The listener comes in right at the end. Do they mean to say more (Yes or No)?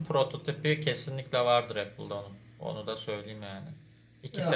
No